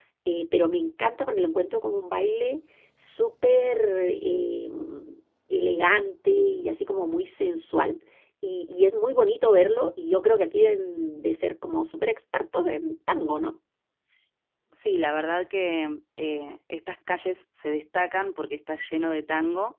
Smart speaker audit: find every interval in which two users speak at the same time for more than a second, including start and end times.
none

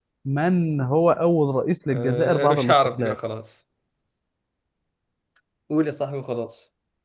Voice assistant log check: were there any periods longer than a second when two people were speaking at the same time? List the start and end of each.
1.9-3.2

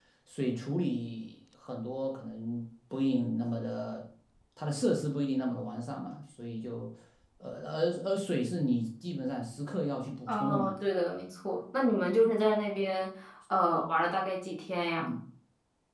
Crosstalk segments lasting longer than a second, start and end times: none

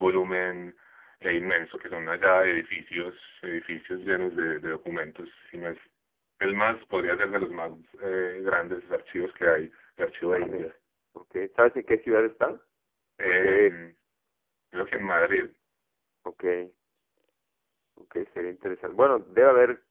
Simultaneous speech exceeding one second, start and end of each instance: none

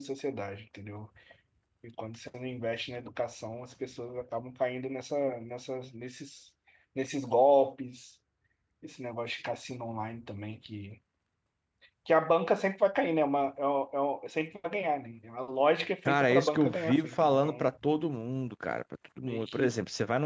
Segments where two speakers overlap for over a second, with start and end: 16.1-17.7

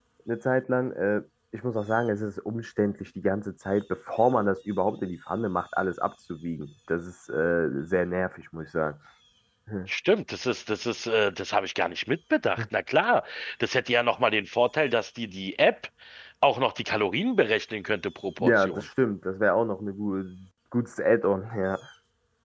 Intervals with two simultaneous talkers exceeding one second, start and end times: none

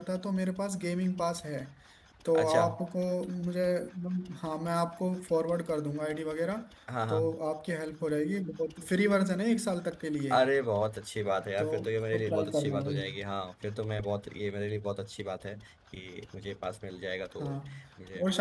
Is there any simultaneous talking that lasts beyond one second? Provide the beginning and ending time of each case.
11.6-13.0

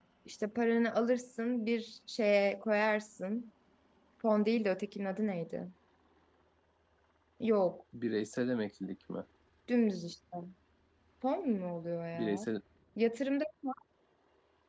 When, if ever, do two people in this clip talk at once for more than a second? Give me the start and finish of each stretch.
none

